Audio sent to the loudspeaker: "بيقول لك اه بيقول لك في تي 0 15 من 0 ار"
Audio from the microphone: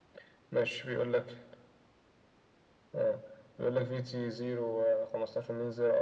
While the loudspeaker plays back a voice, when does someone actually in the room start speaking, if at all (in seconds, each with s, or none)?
none